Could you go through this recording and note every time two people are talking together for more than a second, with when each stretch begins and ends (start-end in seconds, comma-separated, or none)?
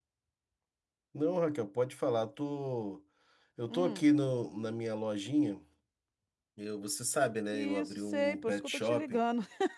7.5-9.2